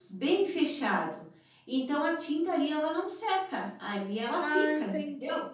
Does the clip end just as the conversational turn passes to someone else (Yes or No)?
Yes